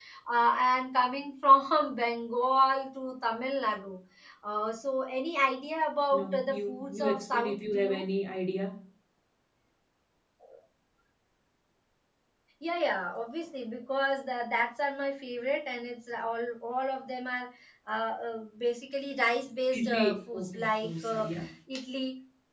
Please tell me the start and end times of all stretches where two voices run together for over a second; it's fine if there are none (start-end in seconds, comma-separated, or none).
6.1-8.0, 19.8-21.2